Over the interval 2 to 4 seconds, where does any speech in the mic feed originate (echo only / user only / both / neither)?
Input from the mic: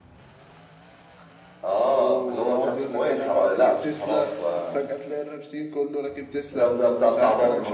both